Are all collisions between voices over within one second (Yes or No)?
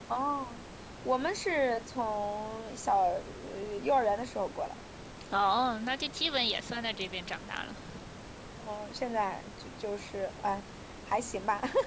Yes